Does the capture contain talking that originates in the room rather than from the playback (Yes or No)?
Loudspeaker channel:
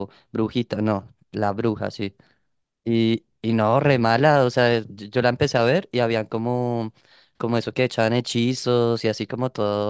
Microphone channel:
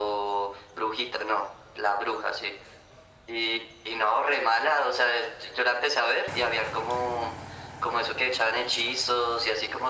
No